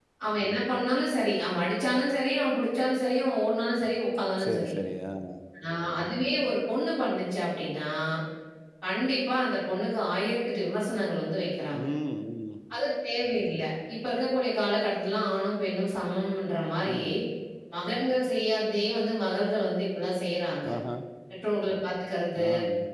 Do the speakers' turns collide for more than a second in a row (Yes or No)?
No